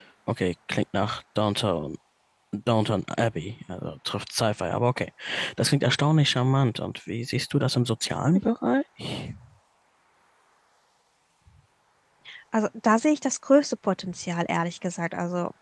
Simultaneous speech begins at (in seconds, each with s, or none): none